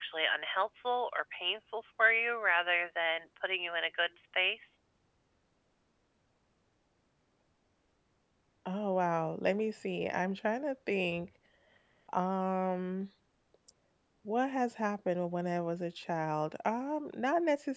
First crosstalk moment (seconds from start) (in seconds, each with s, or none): none